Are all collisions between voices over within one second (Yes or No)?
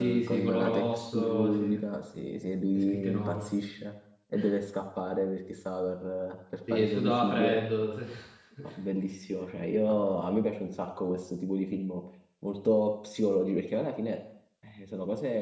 No